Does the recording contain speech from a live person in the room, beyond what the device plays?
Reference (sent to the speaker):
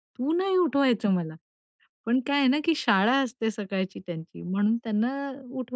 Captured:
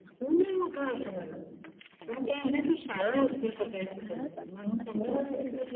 Yes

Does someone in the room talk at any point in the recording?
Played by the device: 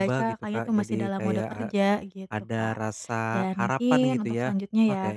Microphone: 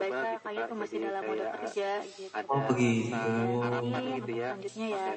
Yes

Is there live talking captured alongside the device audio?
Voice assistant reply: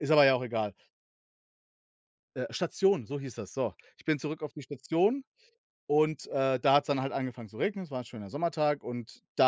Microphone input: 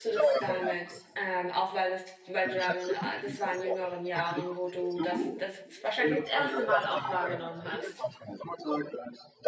Yes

